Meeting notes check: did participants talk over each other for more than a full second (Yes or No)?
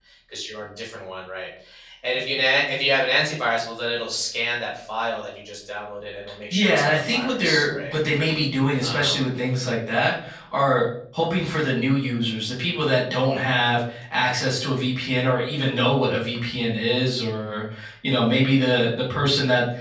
Yes